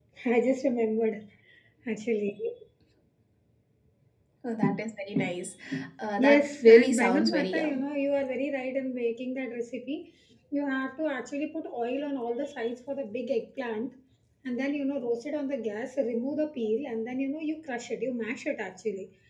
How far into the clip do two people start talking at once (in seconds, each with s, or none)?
6.2 s